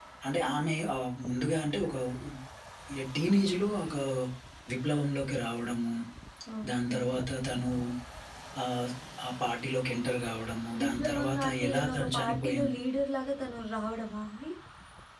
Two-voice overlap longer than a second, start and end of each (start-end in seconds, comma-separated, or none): 10.8-12.8